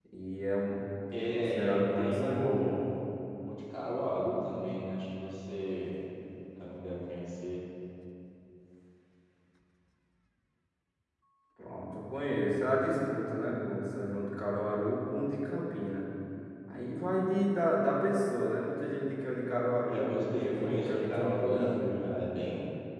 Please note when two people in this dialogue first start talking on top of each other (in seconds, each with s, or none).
1.2 s